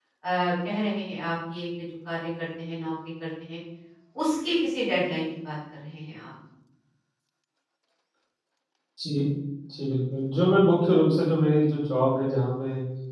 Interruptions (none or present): none